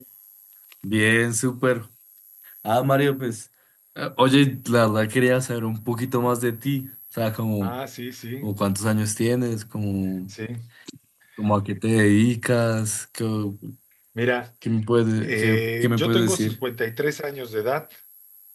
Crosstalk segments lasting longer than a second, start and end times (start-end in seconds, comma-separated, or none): 15.2-16.6